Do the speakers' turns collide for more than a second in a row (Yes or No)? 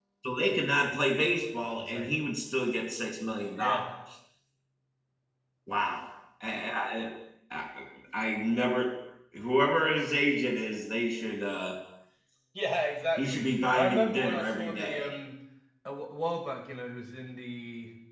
Yes